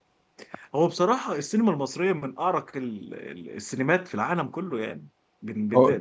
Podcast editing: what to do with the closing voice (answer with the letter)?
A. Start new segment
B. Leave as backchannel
B